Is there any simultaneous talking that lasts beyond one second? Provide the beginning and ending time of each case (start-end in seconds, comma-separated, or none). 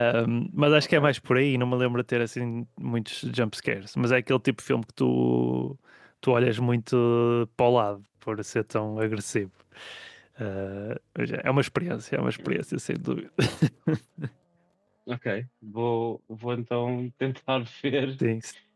none